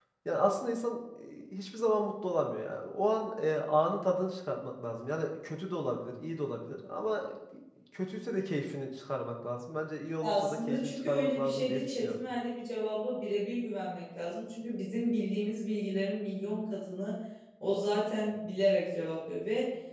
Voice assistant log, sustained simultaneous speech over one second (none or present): present